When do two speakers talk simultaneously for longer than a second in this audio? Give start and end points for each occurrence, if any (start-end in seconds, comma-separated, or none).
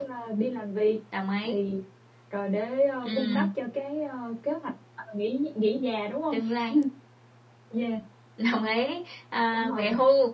none